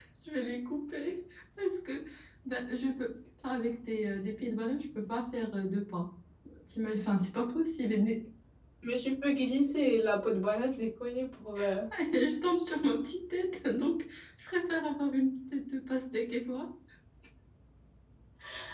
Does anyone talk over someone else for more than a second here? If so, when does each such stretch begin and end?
none

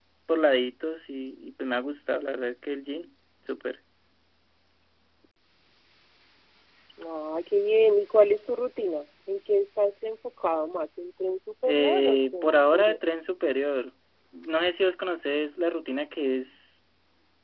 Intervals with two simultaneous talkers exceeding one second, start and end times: 11.7-13.0

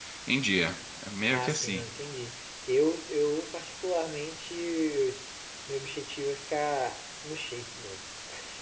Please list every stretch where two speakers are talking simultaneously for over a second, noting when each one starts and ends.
none

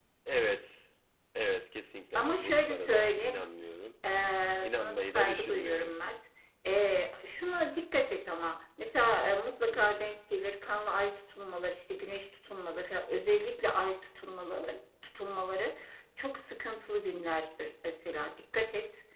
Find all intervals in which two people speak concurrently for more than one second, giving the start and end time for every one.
2.1-3.4, 4.6-5.9

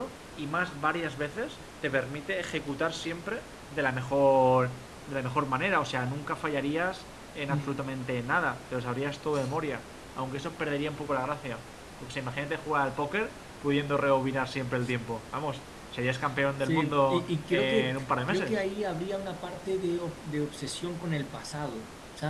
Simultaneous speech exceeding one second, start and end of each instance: 16.6-18.6

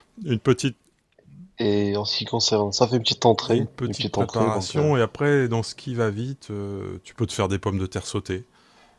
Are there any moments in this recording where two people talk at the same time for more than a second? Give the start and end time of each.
3.5-4.9

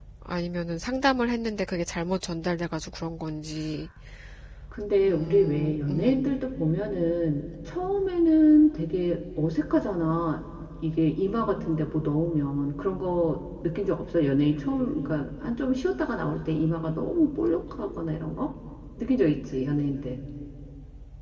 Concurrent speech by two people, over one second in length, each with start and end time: 5.0-6.2

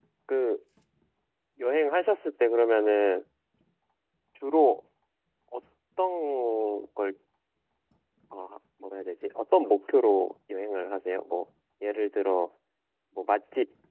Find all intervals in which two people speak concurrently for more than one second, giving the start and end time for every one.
none

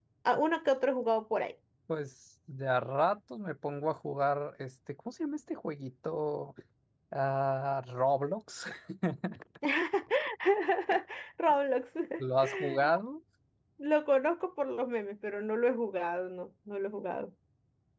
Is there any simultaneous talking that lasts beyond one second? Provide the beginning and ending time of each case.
none

